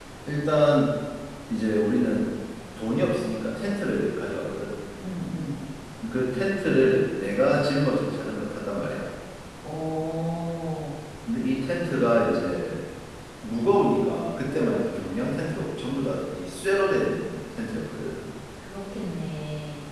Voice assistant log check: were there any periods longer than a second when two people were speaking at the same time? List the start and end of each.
none

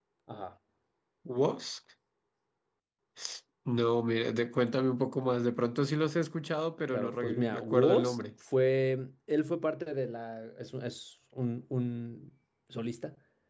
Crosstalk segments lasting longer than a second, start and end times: 6.9-8.2

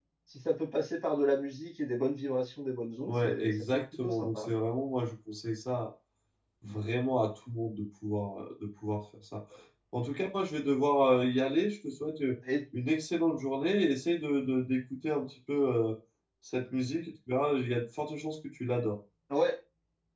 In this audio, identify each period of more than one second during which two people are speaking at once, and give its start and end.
3.1-4.5

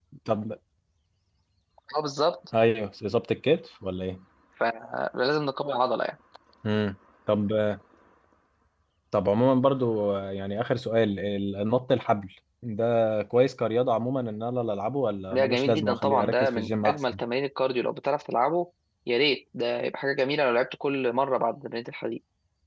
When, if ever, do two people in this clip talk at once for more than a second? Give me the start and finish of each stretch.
15.3-17.2

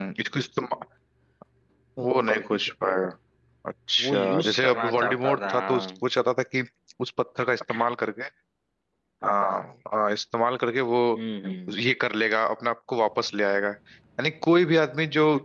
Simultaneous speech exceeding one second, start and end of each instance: 4.0-5.9

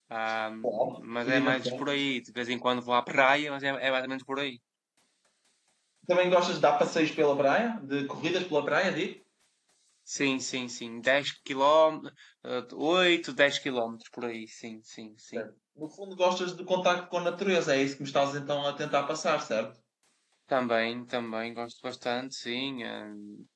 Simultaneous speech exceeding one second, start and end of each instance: 0.6-2.0

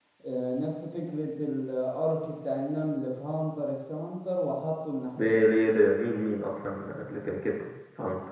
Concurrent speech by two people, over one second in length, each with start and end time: none

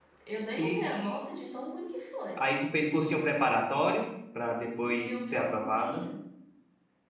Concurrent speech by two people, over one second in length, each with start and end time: 4.8-6.0

